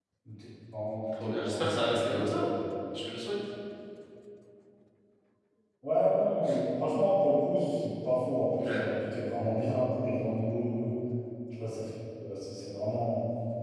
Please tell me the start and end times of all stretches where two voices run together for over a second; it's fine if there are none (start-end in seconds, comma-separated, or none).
1.1-2.5